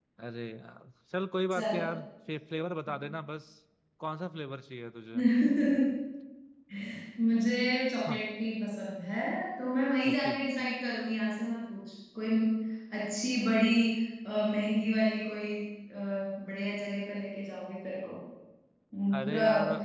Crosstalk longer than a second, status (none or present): none